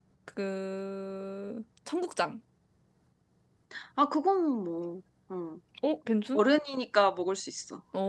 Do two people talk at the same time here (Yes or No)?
No